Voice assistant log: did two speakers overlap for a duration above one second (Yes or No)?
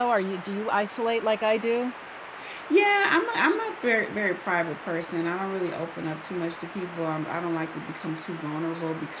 No